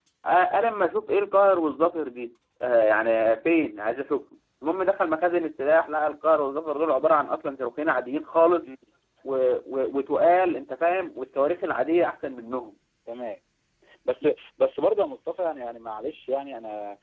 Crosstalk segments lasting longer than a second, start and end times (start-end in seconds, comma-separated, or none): none